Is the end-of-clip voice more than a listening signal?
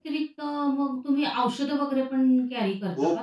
Yes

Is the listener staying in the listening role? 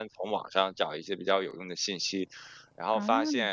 Yes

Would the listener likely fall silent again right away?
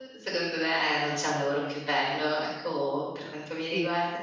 No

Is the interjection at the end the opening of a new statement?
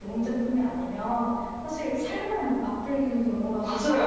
Yes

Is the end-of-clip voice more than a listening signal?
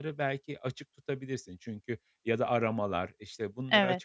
No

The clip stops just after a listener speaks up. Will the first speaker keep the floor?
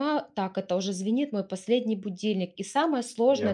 Yes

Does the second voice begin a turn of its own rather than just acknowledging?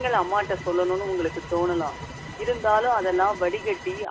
No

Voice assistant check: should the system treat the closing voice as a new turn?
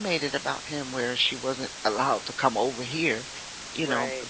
No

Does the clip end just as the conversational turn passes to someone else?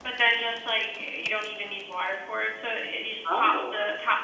No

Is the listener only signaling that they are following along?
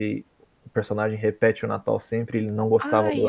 No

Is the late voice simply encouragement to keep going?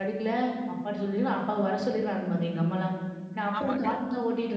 Yes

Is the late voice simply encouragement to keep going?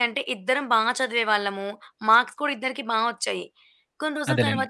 Yes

